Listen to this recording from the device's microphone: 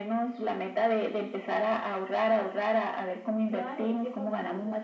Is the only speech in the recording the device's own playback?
No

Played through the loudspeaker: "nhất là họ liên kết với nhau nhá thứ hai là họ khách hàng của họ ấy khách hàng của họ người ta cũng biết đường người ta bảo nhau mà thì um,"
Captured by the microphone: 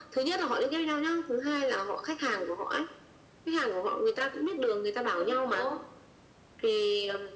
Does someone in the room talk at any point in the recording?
Yes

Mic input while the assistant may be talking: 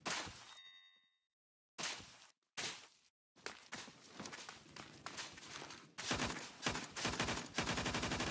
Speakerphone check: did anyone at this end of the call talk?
No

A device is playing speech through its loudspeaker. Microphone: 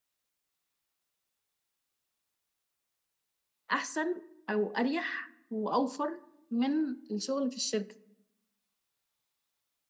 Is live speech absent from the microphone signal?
No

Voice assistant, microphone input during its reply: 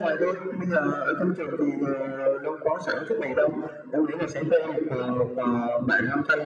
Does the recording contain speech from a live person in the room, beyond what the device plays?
No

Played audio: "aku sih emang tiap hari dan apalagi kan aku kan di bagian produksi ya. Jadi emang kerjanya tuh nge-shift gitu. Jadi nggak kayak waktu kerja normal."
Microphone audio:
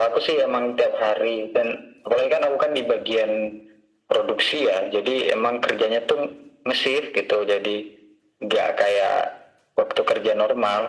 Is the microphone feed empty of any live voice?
Yes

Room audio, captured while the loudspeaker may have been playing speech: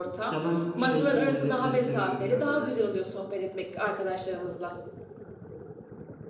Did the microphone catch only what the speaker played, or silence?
No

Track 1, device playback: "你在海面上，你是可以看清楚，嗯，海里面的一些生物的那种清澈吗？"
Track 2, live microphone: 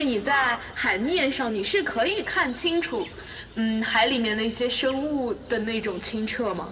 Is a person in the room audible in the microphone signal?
No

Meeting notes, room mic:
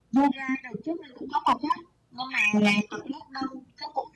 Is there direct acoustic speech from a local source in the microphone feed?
No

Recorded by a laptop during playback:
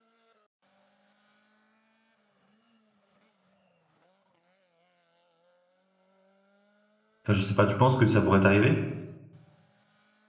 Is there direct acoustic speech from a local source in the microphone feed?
Yes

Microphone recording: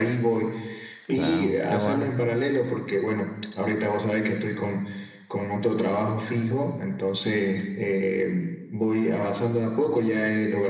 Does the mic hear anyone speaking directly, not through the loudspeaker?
Yes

